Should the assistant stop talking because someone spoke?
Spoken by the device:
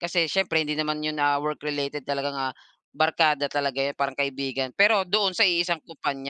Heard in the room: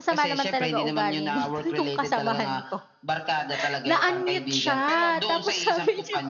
Yes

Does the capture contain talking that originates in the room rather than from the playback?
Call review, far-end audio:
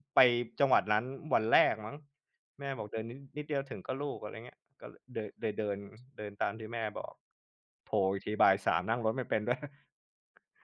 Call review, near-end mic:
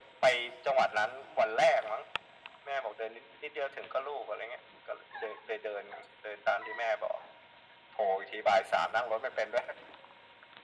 No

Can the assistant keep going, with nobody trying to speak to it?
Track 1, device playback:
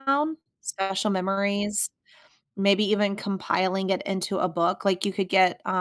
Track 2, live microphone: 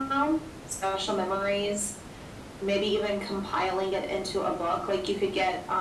Yes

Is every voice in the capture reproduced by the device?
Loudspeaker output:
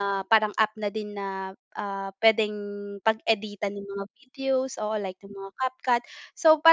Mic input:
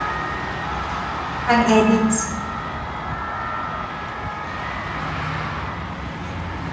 No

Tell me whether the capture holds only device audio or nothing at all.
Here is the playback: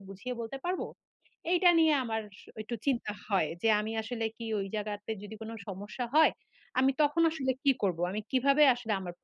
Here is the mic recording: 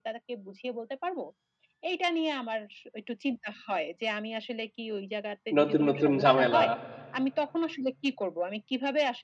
No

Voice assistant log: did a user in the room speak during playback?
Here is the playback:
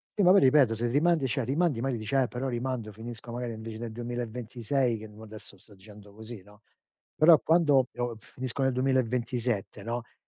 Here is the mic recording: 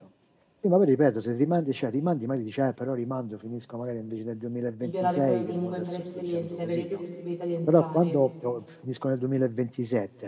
Yes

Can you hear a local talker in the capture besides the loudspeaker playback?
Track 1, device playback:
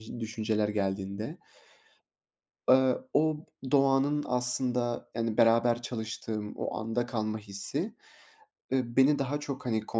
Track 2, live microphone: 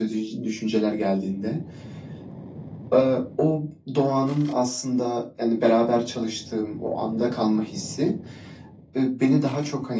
No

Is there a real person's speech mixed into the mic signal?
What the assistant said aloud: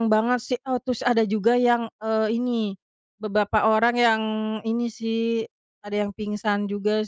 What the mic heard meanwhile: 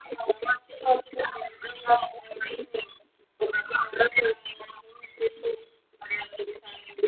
No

